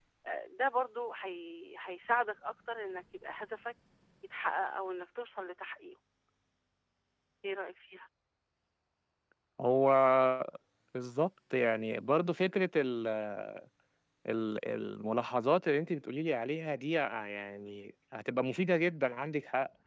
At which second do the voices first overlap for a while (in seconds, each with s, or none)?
none